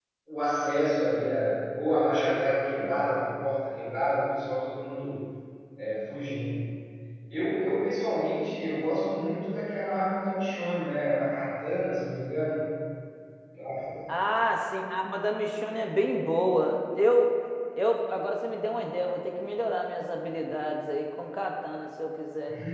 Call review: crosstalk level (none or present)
none